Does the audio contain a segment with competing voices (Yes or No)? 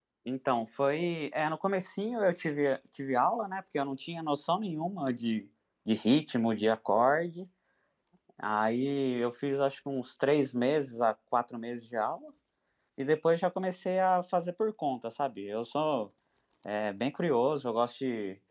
No